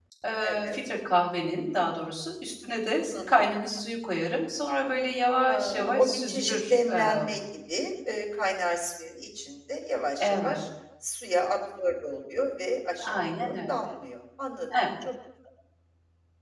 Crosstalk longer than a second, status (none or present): present